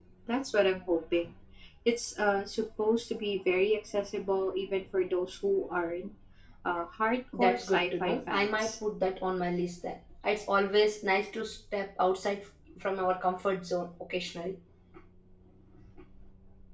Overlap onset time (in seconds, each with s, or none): 7.4 s